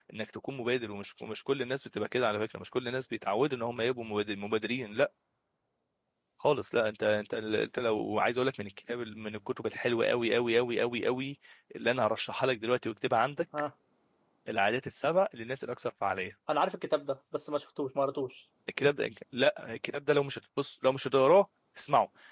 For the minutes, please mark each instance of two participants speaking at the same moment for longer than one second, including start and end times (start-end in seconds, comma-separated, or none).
none